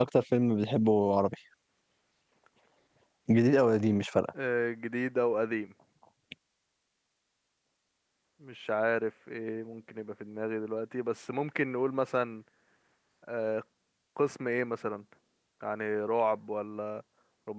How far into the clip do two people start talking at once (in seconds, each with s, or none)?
none